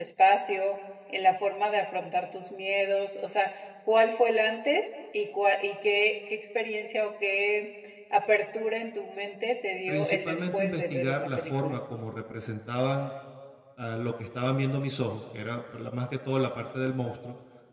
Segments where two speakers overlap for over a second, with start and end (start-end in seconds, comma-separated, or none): 9.9-11.8